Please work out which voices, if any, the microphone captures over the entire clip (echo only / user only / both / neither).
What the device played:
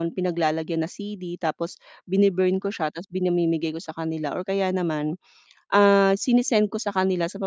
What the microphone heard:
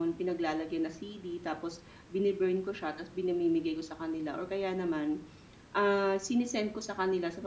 echo only